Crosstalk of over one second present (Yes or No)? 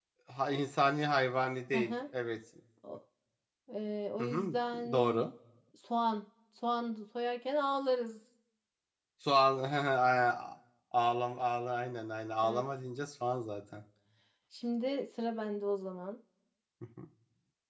No